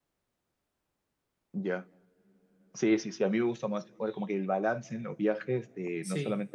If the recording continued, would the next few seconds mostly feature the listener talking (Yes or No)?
No